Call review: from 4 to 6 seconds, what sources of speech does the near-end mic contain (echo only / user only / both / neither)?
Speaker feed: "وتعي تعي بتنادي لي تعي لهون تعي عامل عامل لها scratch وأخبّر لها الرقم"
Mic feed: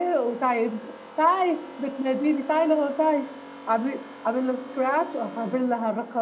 echo only